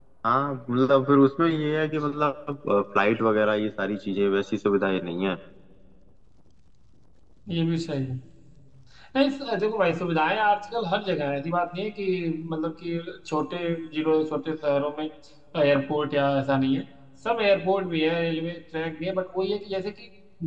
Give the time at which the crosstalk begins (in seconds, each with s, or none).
none